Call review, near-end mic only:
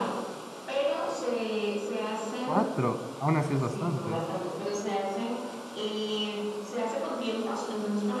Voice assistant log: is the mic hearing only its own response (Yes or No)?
No